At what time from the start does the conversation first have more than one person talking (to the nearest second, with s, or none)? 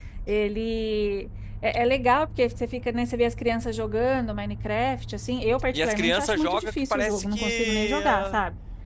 6 s